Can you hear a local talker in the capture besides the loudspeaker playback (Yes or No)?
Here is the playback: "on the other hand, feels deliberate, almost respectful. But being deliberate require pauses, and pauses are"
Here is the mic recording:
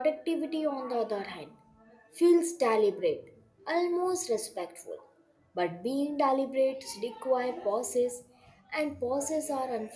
No